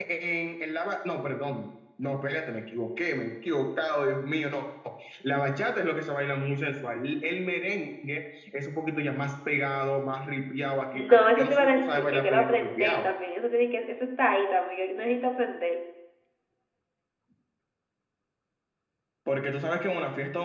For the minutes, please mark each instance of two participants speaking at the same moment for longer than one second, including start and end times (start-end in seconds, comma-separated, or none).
11.1-13.0